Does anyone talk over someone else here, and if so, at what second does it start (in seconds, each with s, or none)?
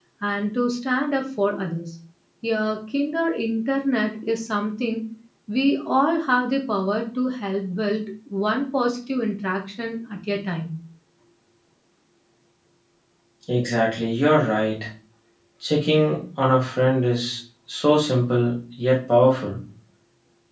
none